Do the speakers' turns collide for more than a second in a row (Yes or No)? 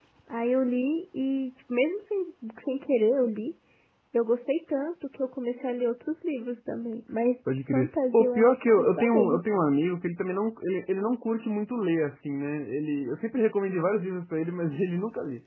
Yes